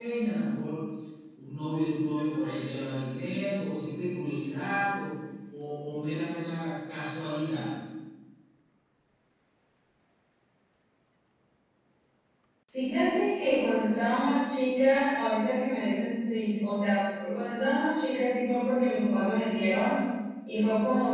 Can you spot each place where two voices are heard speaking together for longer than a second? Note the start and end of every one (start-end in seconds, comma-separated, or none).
none